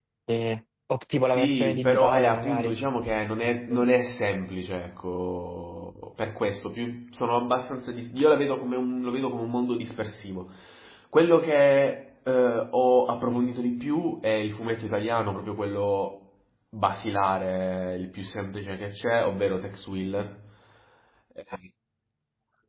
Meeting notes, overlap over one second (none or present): present